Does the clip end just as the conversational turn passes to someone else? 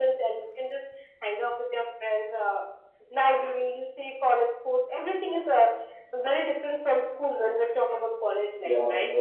Yes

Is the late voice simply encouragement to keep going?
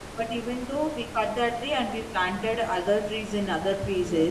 Yes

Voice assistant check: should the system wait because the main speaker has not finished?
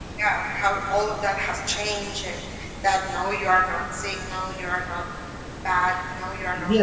No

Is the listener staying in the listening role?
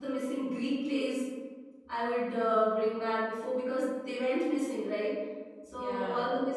Yes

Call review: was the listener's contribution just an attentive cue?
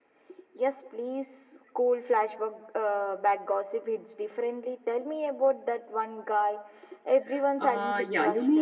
No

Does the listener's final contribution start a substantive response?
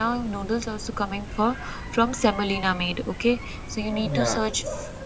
No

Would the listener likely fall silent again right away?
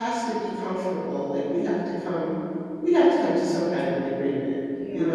Yes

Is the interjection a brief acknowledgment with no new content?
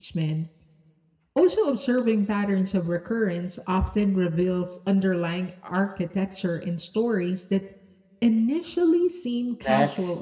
No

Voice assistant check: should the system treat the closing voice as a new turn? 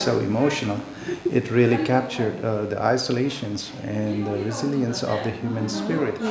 Yes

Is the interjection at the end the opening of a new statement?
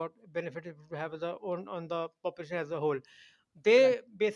No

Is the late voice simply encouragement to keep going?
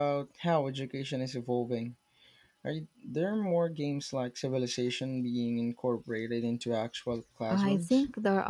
No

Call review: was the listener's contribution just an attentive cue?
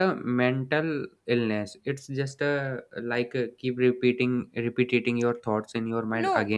No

